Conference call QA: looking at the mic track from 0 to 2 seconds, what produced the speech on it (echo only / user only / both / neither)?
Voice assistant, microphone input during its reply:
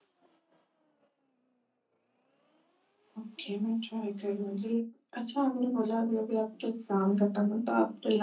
neither